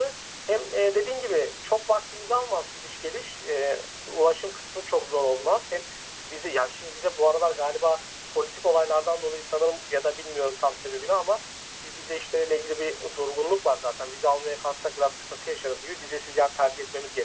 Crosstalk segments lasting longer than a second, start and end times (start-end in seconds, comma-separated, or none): none